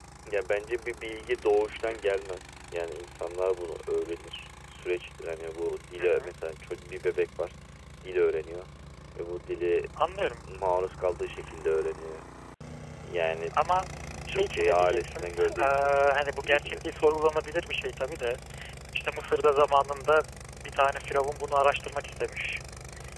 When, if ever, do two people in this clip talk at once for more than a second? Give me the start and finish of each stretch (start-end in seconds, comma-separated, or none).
14.3-15.6